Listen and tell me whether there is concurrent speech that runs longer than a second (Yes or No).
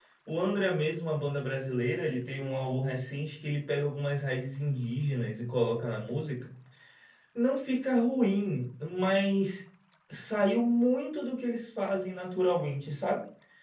No